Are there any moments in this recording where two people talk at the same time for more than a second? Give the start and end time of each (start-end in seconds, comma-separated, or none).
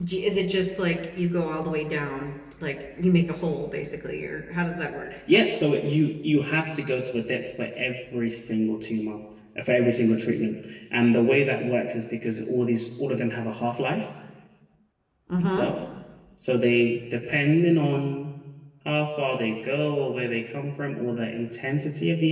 none